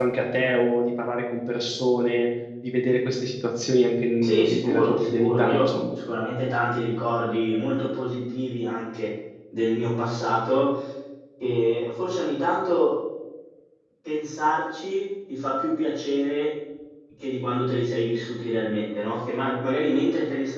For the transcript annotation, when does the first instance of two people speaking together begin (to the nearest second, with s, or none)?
4 s